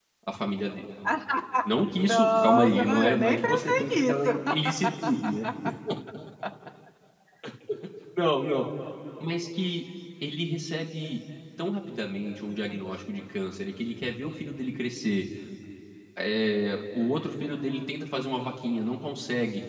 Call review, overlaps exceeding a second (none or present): present